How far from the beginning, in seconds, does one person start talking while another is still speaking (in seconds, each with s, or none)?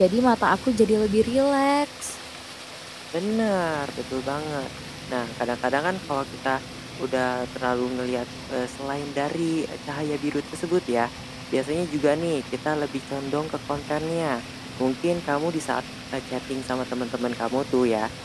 none